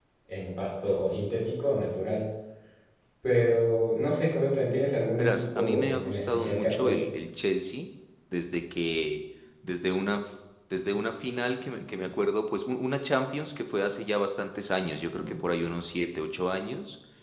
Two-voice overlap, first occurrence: 5.2 s

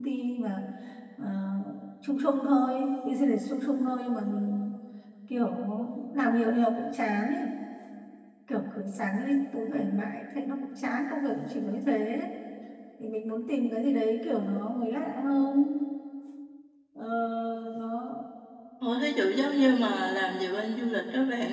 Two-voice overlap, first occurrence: none

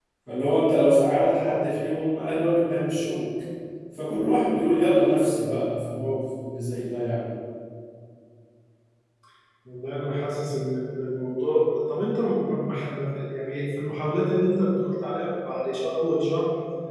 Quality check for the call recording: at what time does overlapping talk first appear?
none

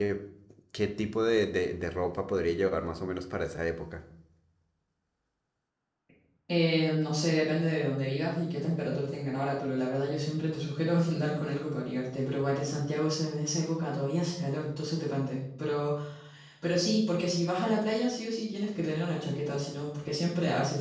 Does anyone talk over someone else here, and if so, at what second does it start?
none

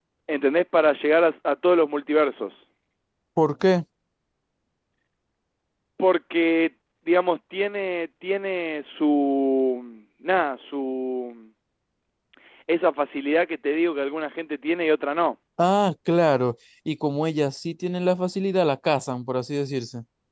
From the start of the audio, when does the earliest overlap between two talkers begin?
none

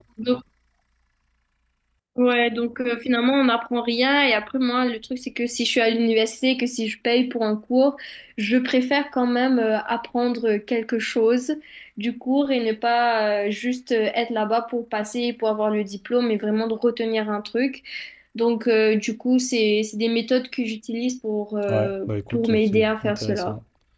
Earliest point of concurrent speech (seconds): 21.7 s

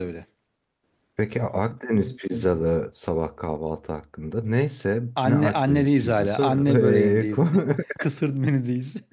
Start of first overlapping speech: 5.2 s

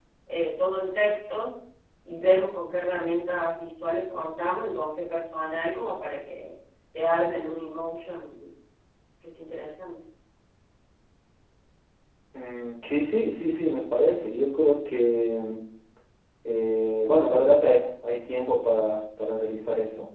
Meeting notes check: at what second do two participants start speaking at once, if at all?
none

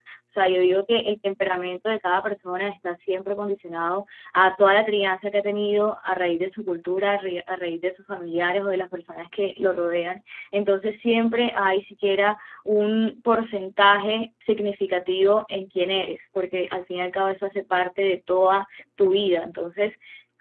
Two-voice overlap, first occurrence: none

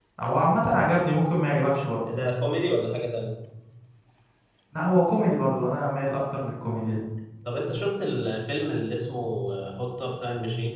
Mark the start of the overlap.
none

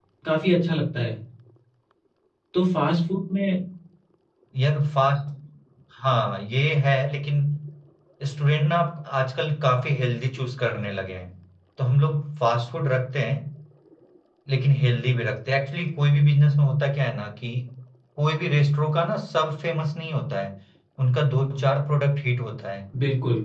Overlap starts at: none

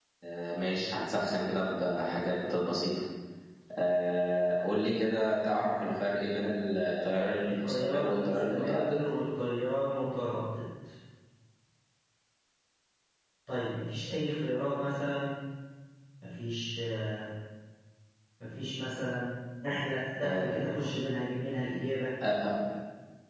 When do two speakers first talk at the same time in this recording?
7.5 s

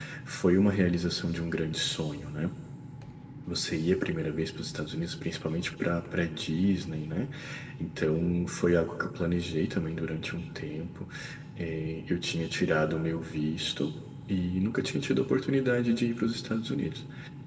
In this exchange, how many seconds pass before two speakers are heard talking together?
none

